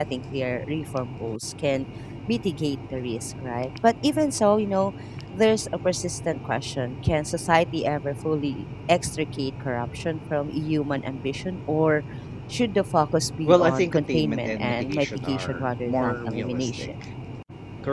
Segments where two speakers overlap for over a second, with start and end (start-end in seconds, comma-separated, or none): 13.4-16.9